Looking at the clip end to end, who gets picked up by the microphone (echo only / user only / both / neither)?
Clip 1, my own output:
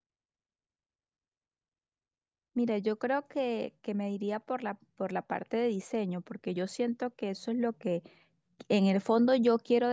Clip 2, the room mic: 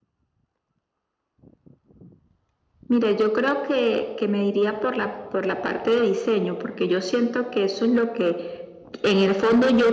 echo only